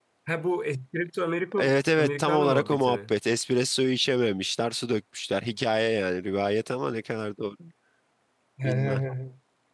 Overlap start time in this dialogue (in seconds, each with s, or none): 1.6 s